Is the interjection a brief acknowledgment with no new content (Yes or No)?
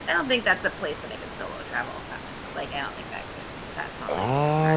No